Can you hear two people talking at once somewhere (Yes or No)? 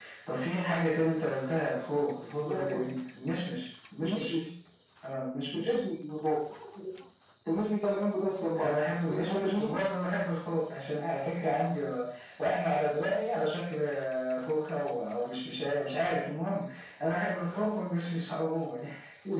Yes